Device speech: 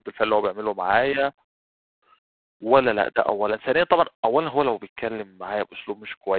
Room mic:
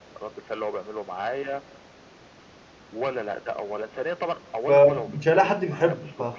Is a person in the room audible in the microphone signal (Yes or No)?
Yes